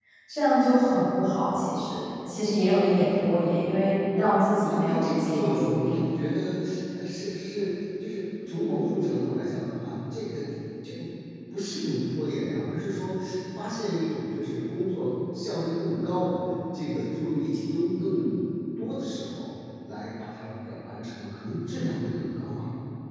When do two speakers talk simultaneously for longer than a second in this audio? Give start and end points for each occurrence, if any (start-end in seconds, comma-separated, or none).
4.6-5.9